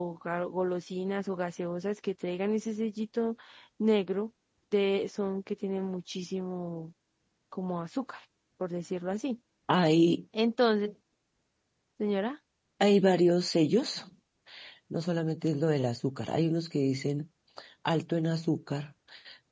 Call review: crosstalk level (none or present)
none